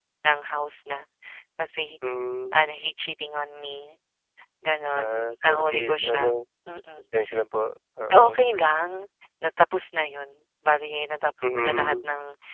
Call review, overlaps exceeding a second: present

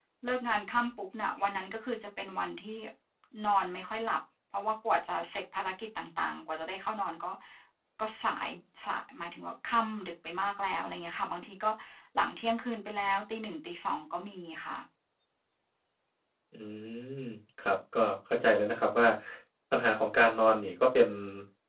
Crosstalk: none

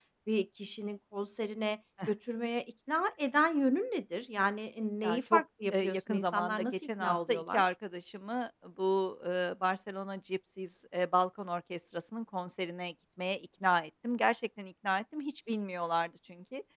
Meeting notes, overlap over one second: present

